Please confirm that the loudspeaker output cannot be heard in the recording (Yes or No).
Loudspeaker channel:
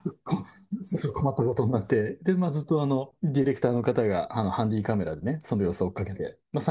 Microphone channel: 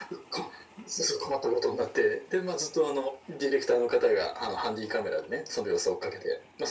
No